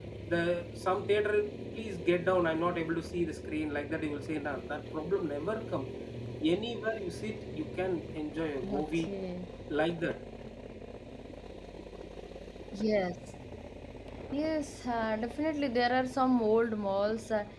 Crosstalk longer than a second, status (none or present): none